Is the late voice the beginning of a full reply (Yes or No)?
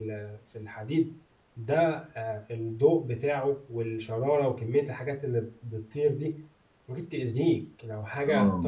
No